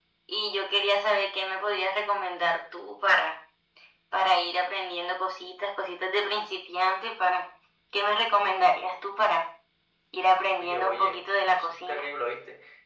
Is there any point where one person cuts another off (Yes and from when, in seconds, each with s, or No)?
Yes, from 10.6 s